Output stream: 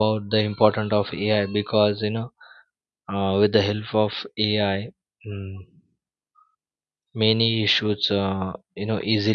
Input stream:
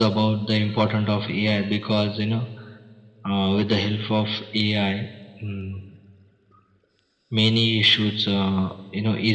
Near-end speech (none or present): none